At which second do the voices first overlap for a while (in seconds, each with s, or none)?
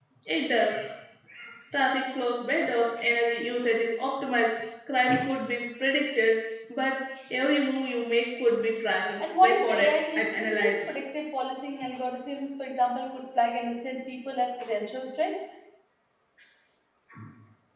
9.2 s